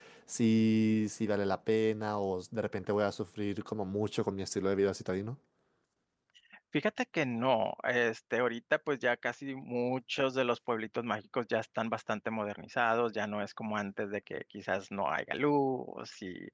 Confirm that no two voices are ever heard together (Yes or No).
Yes